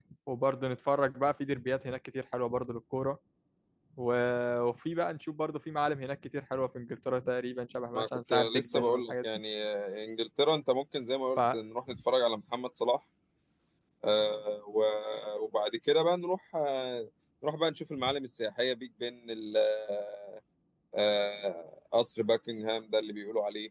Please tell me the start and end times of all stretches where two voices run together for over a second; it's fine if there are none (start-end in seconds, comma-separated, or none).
8.0-9.2